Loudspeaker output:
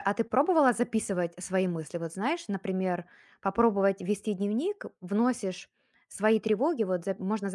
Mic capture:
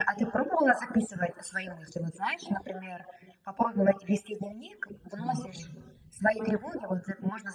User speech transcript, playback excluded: Мгм.

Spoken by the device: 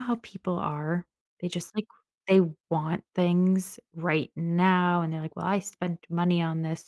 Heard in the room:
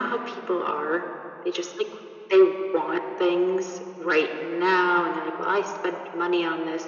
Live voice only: none

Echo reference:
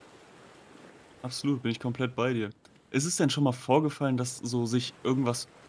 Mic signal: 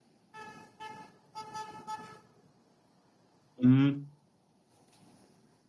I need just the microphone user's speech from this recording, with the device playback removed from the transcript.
Mhm.

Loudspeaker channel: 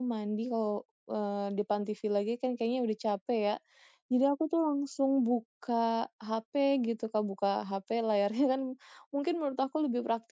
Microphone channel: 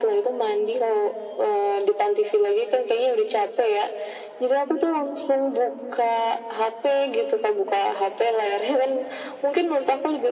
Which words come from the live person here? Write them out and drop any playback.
none

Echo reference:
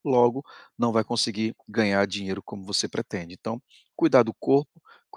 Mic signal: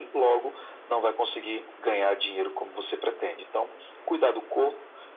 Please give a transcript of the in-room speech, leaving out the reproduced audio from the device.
none

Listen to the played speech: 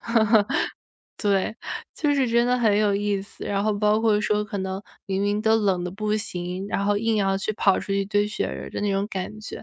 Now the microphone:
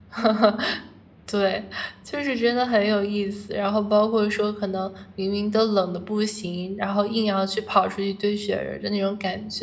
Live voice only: none

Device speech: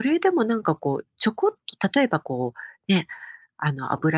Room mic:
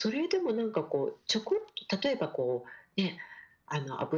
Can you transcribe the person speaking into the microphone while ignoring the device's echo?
none

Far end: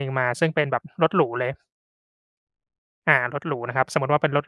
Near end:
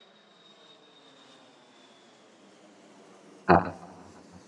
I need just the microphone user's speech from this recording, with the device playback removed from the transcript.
ครับ

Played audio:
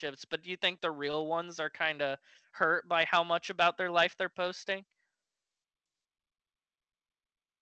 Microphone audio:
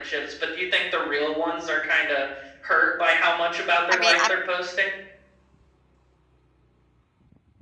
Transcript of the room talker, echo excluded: I mean, I

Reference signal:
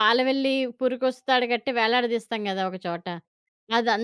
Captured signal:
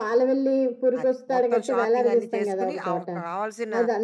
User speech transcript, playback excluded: అదే. మొత్తం షాపింగ్ అన్నీ చేసుకొని ఆవ కావాల్సిన

